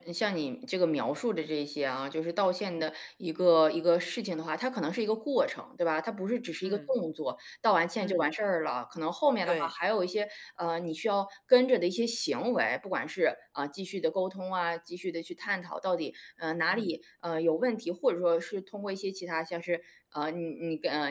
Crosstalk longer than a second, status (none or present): none